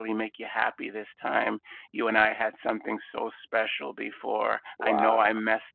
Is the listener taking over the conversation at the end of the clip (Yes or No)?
No